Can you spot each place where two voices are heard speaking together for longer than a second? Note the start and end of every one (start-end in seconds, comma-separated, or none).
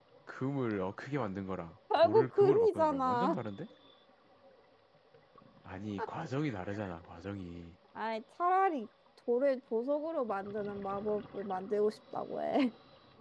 2.0-3.4